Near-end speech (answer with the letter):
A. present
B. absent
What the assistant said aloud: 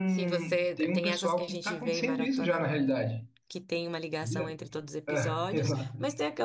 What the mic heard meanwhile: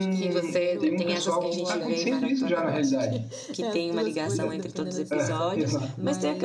A